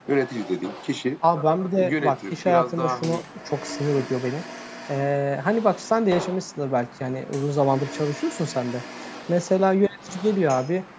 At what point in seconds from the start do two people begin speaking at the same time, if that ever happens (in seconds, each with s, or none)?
1.8 s